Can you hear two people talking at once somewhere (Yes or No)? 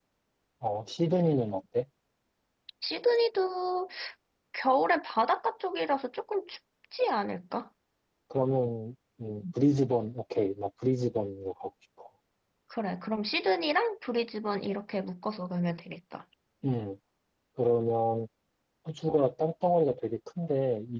No